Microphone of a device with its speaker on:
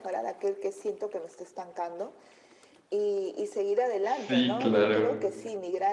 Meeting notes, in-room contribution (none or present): present